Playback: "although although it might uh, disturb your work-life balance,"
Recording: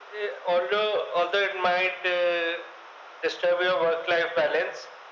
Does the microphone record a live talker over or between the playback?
No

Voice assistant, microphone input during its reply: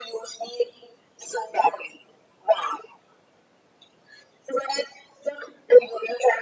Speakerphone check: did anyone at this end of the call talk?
No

